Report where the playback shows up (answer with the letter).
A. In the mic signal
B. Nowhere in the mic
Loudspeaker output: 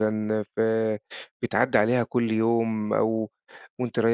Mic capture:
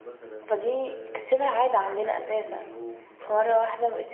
A